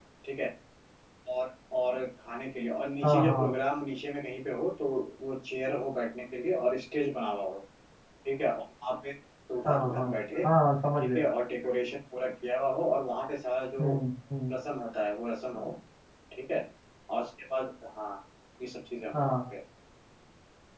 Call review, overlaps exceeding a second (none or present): none